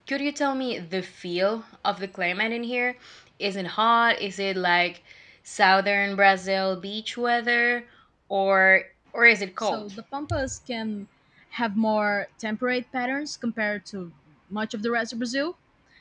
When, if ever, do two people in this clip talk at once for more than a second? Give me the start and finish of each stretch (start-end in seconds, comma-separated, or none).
none